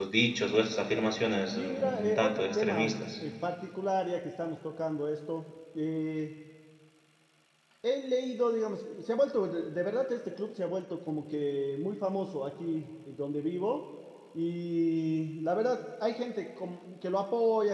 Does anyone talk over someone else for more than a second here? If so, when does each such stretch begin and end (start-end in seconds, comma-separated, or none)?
1.6-3.1